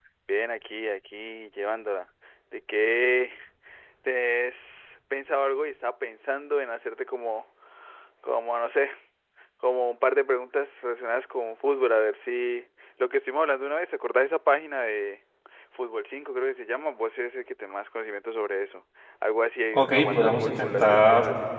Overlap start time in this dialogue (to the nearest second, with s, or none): 20 s